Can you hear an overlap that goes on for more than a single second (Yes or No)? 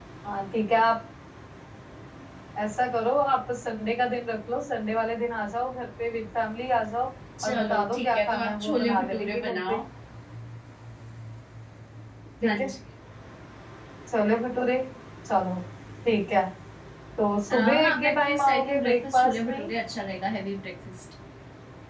Yes